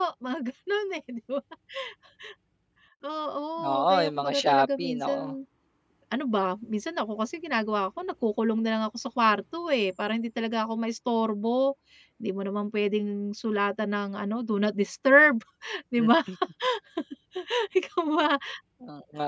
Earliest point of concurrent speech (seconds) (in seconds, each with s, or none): 3.7 s